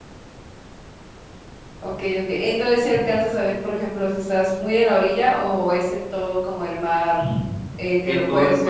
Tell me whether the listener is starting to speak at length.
Yes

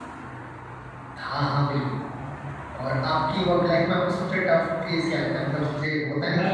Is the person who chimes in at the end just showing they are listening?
No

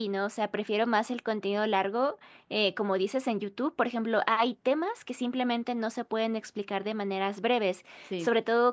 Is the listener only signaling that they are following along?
Yes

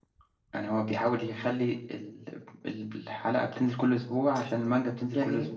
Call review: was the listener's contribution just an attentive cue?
Yes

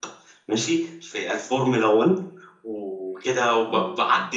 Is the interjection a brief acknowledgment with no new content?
Yes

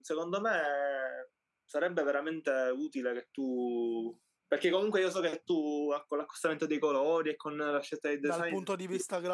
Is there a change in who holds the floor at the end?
Yes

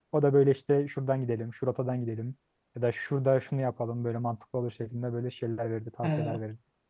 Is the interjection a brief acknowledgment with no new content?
No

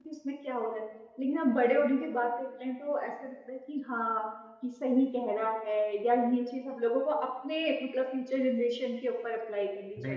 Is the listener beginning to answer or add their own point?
Yes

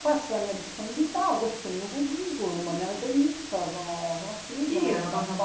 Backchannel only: No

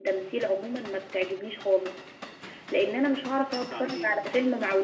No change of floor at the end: Yes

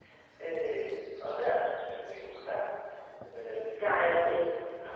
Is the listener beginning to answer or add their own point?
Yes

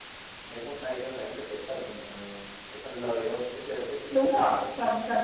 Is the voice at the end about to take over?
Yes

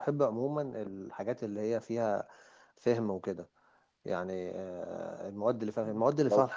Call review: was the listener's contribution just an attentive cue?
Yes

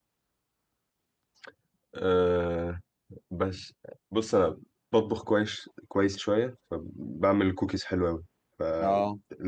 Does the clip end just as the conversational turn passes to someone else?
No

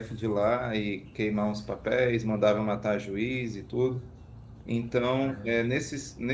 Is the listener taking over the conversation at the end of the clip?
No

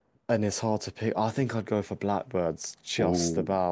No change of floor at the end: No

